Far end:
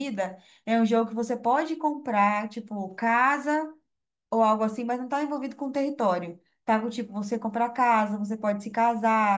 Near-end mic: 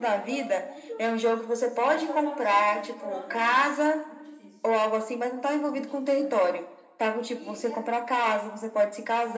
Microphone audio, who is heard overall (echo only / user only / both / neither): both